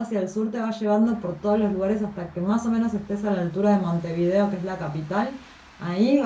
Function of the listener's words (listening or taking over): listening